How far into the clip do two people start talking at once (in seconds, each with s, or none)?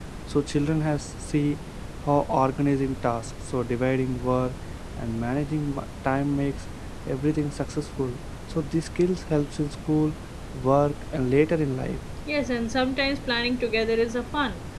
none